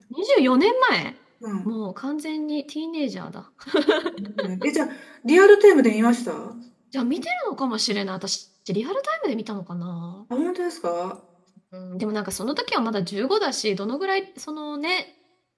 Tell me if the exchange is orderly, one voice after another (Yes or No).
Yes